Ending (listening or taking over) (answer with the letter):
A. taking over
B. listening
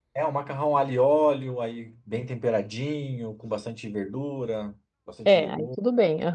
A